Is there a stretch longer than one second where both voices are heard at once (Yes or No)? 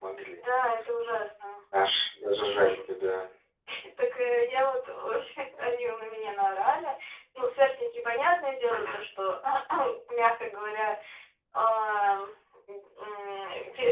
No